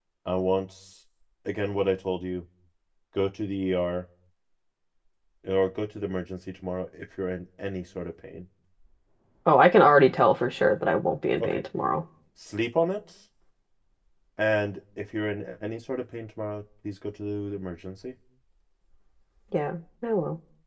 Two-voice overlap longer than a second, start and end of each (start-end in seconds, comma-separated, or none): none